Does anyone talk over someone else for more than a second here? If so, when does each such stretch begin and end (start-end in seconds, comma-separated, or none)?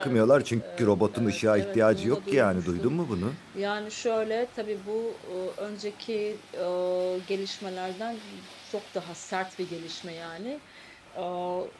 0.6-2.9